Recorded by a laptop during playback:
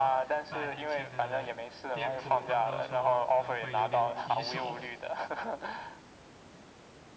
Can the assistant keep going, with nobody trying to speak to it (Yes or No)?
No